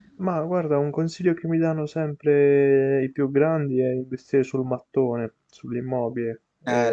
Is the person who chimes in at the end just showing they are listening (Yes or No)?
No